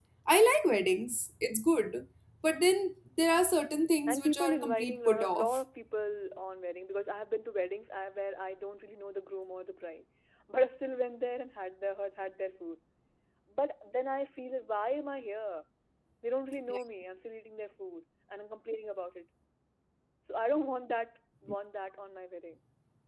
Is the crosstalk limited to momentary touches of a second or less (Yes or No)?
No